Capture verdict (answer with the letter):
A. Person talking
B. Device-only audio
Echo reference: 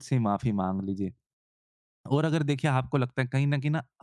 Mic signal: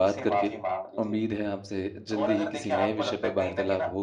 A